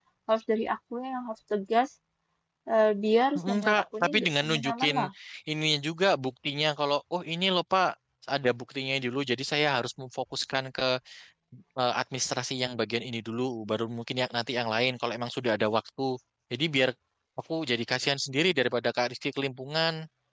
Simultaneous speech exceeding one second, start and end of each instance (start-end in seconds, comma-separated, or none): 3.4-5.0